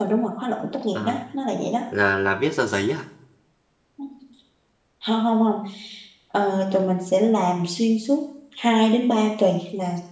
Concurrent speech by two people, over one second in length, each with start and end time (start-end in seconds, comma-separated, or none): none